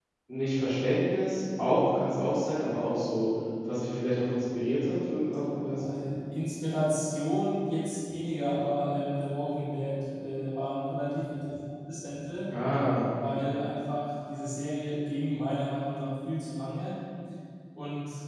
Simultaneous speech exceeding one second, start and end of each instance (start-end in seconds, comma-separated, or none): none